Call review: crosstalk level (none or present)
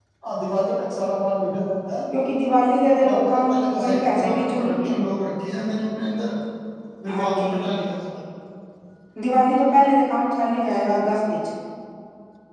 present